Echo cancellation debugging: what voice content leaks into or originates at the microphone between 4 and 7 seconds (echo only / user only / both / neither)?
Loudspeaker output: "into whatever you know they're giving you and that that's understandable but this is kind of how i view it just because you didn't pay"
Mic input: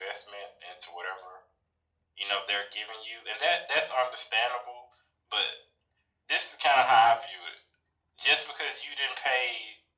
echo only